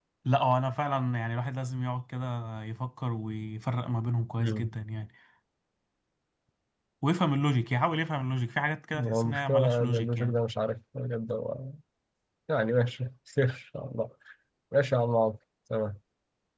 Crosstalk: present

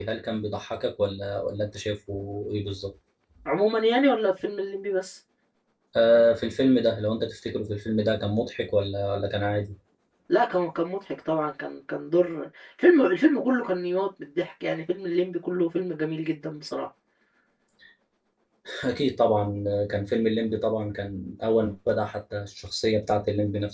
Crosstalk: none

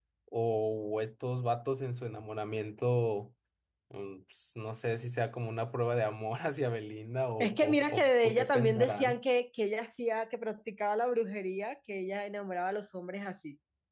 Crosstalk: present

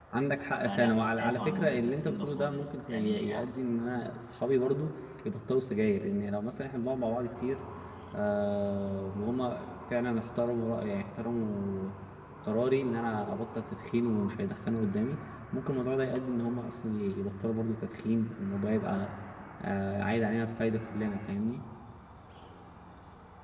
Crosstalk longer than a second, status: present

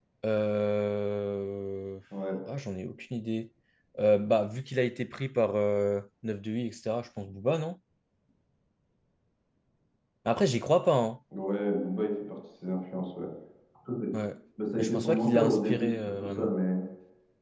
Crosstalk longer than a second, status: present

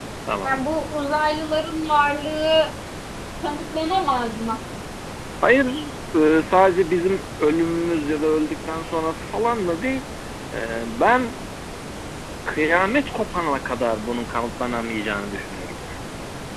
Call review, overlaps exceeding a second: none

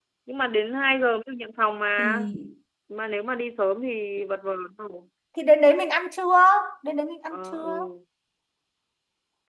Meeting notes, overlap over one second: none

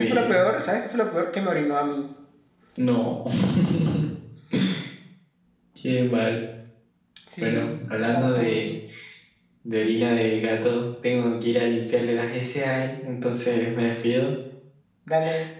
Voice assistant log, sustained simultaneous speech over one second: present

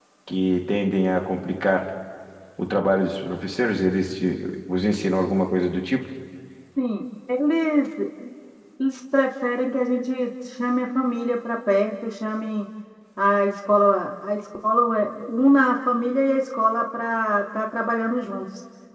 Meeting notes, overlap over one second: none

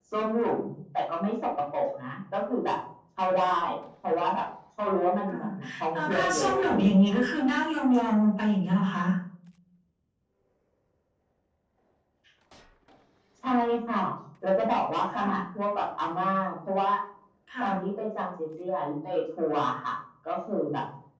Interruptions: present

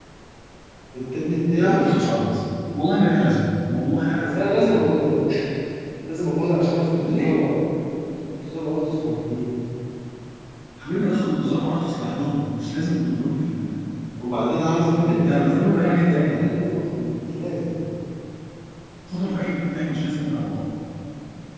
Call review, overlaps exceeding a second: present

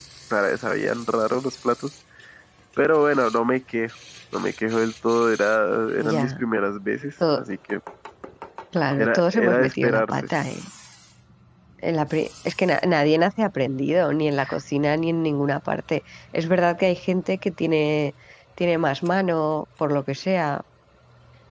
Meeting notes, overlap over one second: present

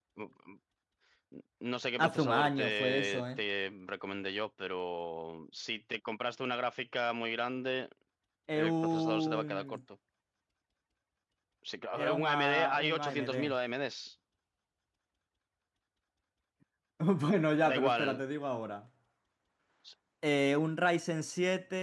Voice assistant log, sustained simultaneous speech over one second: present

